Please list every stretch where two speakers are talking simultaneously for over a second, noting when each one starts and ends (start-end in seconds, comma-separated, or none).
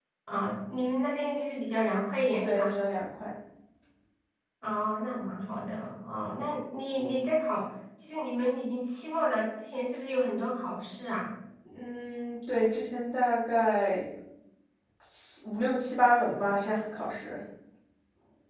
none